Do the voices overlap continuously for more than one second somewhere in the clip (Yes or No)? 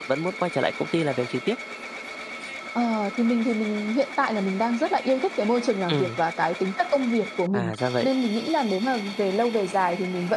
No